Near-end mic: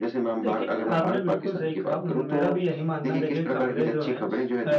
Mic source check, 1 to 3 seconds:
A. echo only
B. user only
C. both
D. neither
C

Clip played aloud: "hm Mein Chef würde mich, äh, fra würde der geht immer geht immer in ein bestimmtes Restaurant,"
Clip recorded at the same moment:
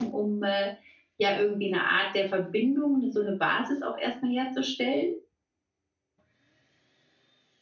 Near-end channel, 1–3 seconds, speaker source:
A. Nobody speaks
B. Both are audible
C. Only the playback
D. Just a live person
D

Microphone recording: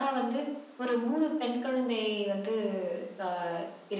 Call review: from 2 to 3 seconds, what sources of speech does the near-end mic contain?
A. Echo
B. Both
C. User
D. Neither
A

